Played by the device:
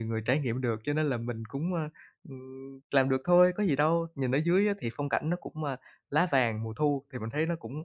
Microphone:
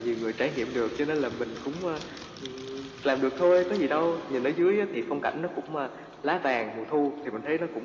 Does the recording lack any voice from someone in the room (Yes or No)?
Yes